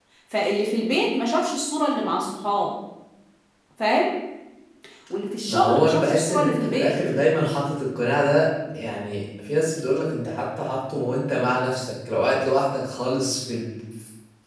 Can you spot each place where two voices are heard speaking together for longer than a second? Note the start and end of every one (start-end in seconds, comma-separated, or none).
5.5-6.9